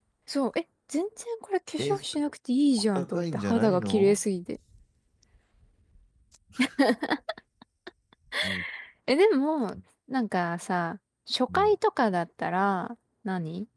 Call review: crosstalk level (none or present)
present